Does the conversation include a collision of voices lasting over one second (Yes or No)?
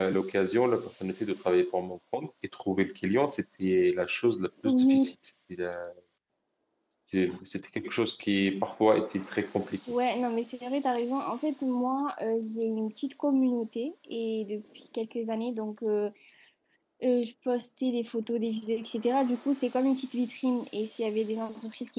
No